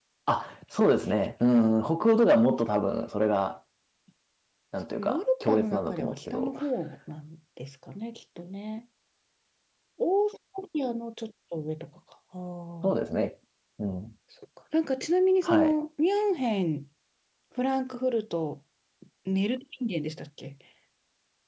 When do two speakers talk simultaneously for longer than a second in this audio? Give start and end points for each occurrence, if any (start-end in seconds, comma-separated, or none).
5.0-6.5